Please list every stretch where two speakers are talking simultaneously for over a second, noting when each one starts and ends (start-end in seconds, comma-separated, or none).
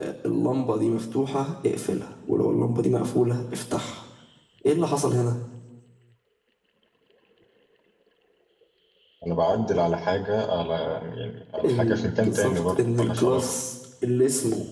11.6-13.4